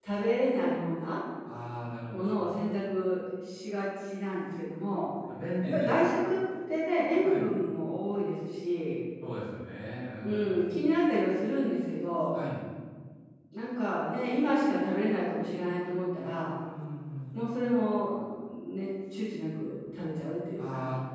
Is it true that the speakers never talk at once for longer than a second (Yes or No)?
Yes